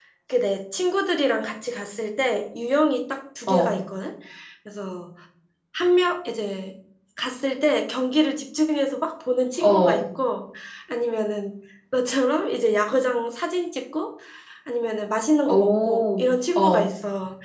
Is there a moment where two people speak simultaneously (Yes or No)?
Yes